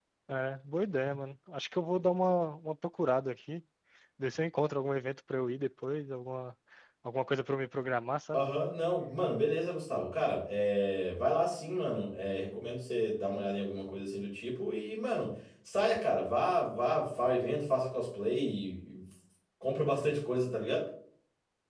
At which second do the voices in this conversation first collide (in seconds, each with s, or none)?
none